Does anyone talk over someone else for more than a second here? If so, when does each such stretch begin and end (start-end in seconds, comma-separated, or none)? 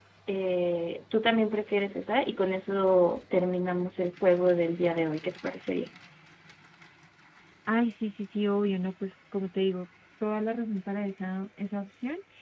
none